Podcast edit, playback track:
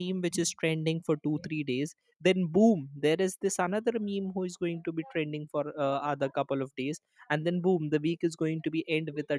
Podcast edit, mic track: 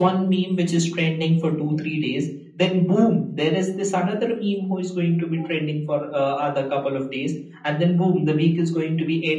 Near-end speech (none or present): none